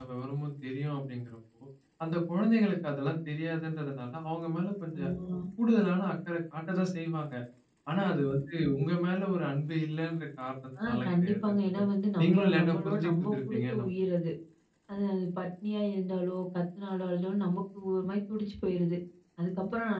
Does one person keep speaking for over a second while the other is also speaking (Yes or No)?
Yes